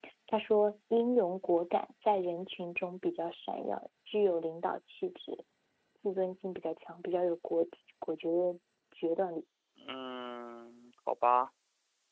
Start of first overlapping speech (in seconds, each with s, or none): none